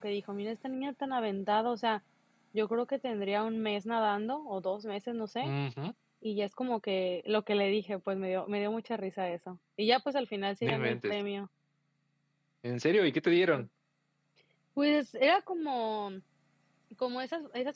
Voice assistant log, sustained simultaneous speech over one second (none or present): none